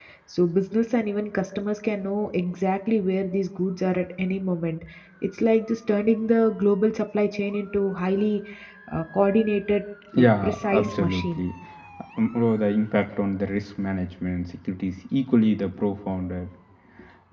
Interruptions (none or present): present